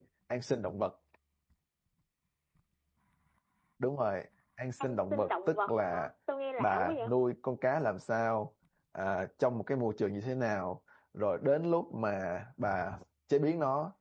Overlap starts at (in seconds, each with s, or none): 4.8 s